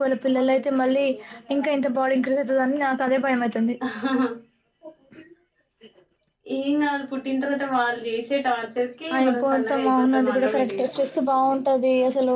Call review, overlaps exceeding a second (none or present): present